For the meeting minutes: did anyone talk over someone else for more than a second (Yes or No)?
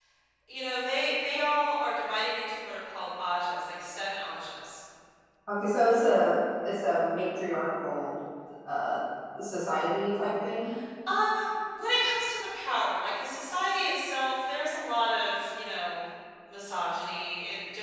No